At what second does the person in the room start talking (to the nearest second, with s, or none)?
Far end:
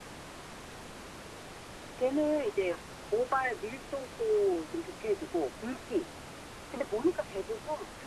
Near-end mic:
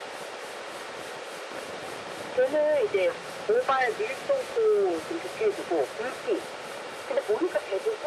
none